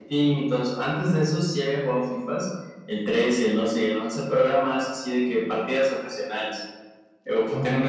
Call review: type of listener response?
listening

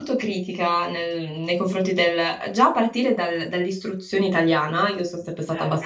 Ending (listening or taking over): listening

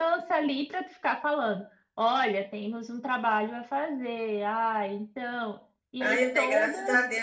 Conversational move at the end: taking over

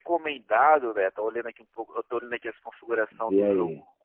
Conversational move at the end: listening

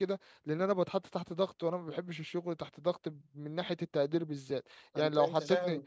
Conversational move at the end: taking over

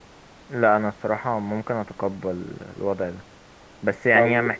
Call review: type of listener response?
listening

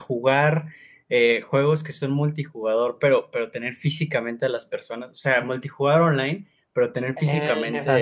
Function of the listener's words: listening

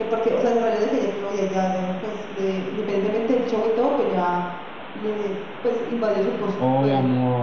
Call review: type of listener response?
taking over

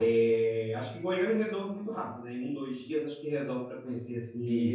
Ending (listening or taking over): listening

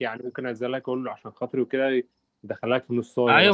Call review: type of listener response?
taking over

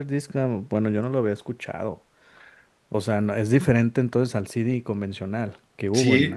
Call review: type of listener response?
taking over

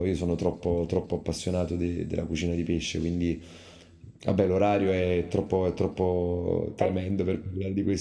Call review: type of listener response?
listening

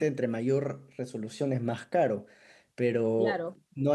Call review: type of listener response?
listening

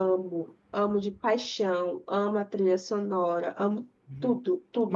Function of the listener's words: taking over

